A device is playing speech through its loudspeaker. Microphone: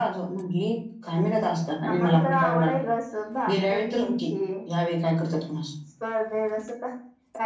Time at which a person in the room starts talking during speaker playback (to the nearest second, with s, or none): none